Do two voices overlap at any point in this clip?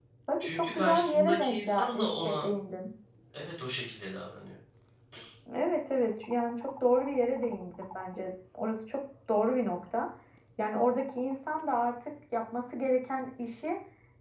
Yes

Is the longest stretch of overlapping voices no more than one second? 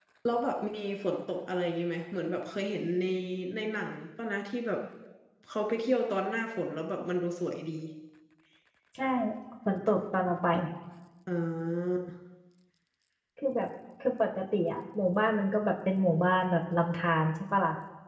Yes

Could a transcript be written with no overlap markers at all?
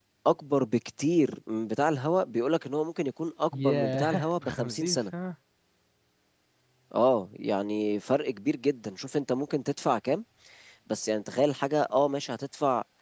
No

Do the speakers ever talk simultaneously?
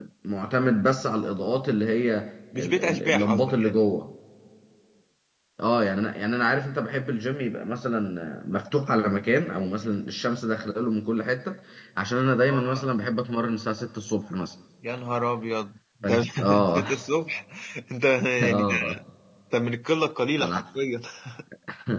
Yes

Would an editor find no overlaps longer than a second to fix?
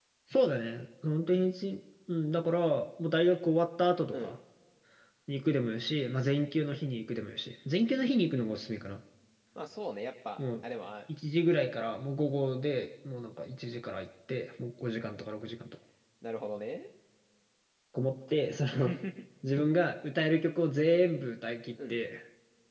Yes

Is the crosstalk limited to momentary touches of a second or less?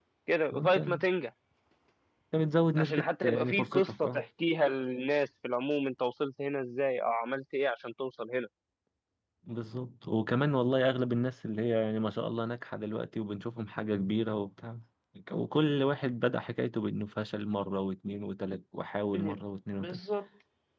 No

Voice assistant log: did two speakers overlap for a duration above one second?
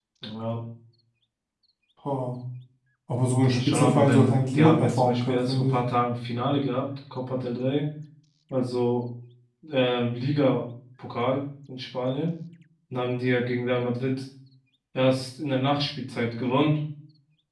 Yes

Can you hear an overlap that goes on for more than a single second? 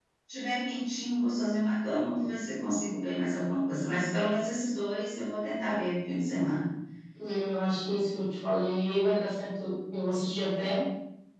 No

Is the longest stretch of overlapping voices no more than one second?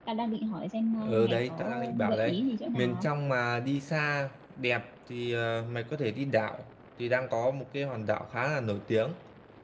No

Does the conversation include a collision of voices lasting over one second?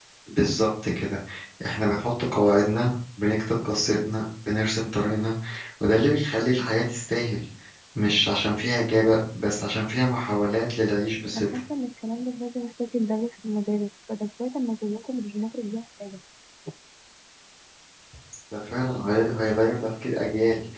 No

